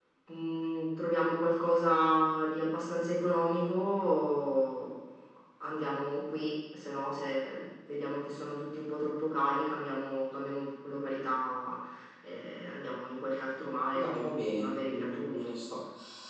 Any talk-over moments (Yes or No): Yes